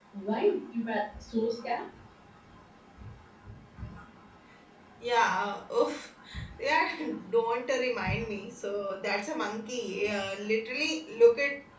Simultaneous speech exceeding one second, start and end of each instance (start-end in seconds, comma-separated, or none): none